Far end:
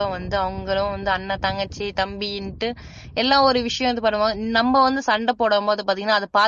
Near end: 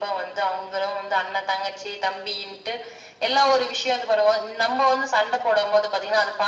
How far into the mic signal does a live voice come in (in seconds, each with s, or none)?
none